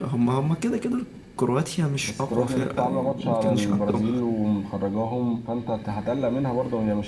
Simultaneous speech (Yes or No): Yes